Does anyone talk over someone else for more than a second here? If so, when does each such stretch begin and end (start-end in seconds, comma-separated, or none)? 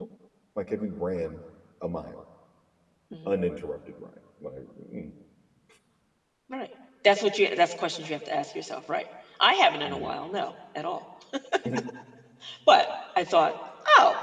none